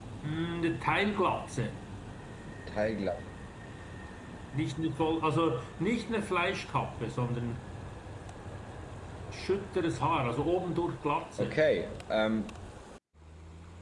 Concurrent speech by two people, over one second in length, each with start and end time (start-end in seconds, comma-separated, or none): none